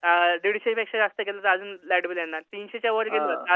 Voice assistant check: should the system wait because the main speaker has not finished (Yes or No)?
Yes